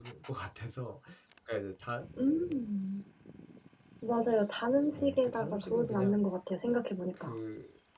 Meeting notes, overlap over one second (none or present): present